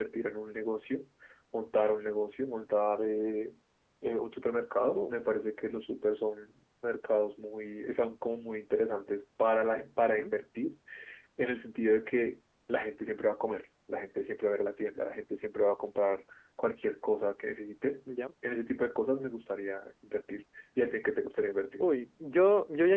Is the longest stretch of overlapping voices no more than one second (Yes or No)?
Yes